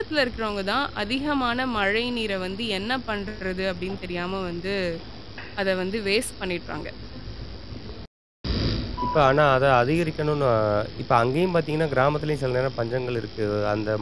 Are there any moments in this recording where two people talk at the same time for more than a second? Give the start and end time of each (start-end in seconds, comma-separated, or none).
none